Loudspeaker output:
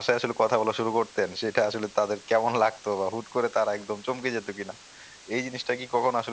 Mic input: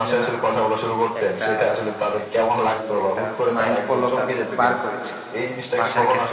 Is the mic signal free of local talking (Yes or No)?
No